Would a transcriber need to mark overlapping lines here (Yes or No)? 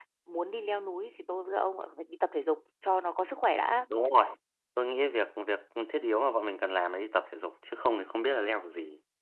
No